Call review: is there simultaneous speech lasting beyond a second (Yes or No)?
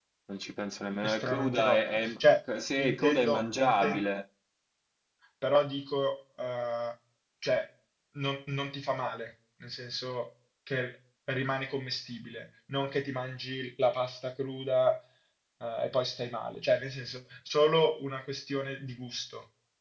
Yes